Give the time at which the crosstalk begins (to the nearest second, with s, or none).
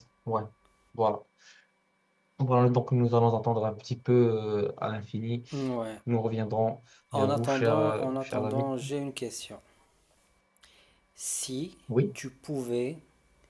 7 s